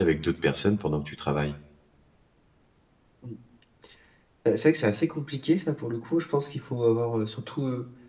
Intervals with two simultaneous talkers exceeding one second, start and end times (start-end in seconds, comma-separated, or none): none